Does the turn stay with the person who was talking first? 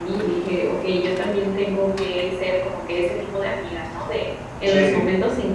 Yes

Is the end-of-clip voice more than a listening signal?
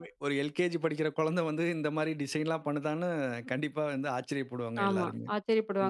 Yes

